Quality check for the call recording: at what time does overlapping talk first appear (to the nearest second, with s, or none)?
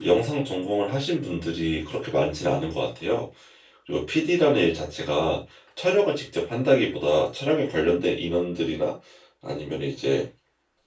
none